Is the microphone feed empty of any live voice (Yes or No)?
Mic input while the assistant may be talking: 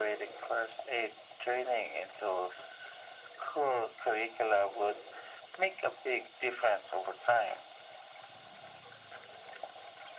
Yes